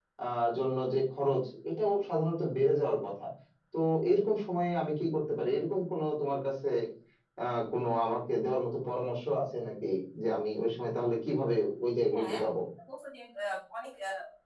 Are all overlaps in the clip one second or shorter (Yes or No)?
Yes